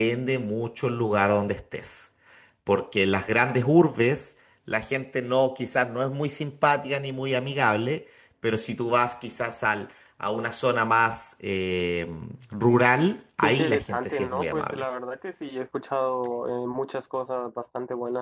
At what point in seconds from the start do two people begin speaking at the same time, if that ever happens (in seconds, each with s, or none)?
13.4 s